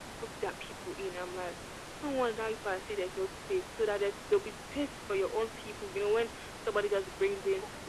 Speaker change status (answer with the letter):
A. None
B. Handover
A